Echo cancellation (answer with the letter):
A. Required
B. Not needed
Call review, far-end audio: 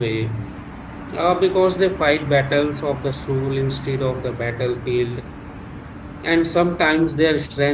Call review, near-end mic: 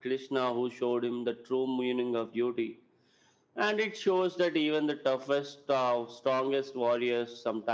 B